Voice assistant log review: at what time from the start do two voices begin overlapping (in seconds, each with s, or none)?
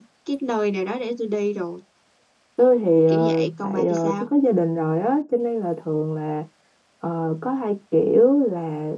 3.1 s